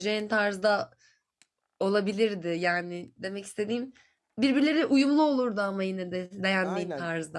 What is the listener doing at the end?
taking over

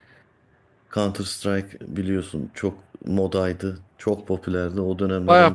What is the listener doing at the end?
taking over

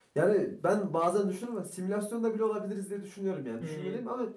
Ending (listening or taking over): listening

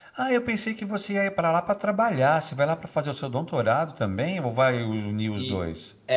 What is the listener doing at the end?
taking over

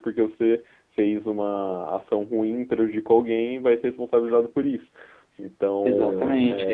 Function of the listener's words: taking over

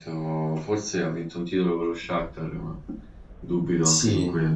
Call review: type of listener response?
taking over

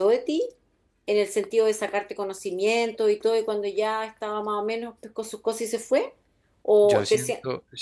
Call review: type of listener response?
taking over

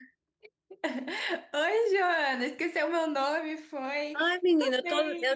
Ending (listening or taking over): taking over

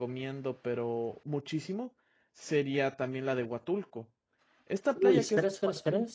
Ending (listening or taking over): taking over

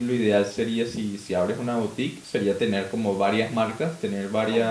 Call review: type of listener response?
listening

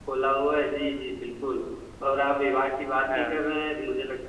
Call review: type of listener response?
listening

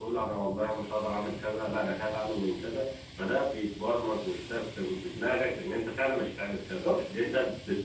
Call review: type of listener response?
listening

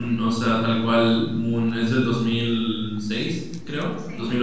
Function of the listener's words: listening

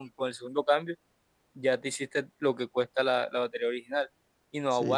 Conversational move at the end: listening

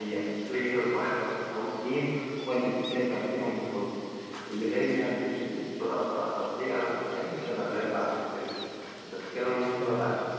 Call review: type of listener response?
taking over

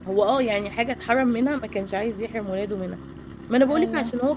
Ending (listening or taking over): listening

